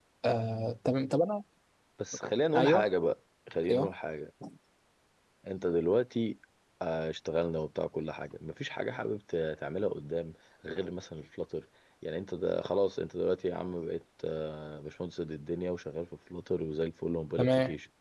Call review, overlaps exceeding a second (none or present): none